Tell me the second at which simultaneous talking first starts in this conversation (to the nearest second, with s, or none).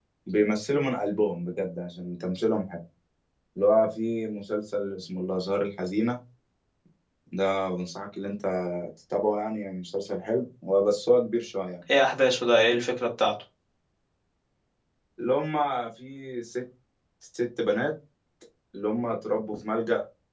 none